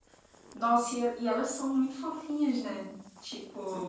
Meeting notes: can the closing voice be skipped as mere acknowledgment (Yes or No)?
Yes